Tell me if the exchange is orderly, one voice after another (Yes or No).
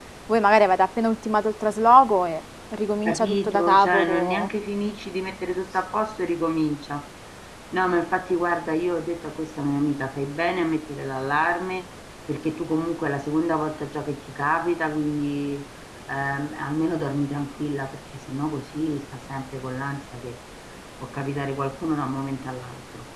No